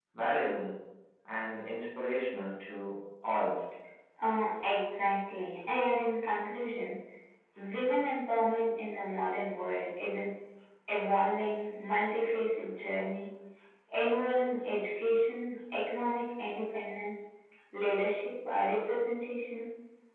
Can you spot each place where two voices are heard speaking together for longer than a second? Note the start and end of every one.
none

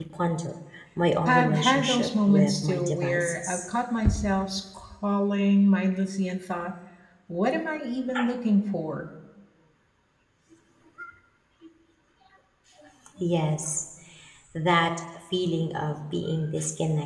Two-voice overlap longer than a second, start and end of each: 1.3-3.6

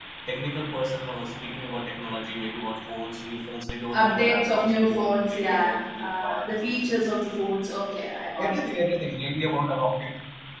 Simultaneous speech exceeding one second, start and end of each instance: 3.9-6.5

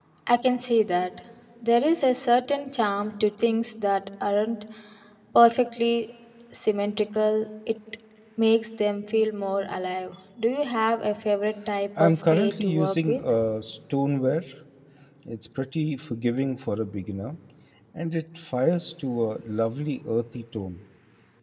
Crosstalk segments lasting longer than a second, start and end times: 12.0-13.2

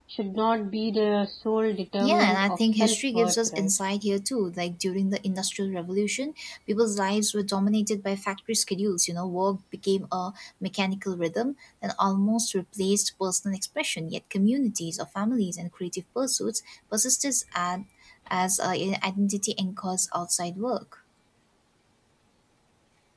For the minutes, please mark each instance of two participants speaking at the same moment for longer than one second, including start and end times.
2.0-3.7

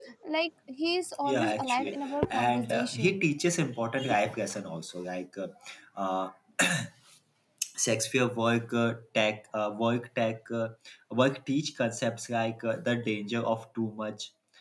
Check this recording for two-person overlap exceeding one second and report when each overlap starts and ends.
1.2-3.3

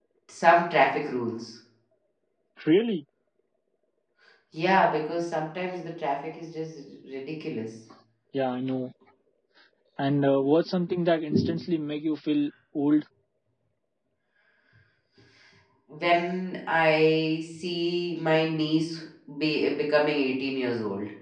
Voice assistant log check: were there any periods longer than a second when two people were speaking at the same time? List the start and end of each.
none

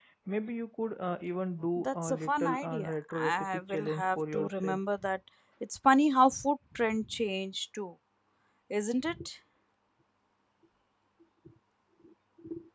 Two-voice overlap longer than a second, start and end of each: 1.8-4.8

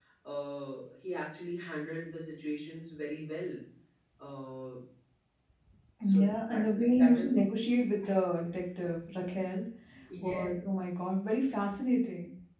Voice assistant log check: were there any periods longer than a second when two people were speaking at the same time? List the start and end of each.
6.0-7.5

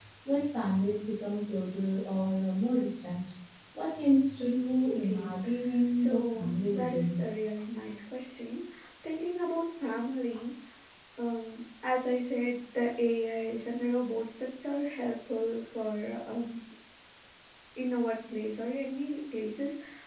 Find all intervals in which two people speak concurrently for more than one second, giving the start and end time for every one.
6.0-7.2

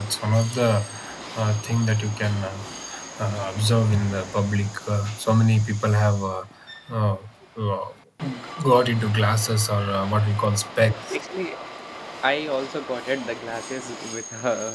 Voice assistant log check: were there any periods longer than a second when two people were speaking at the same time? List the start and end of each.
none

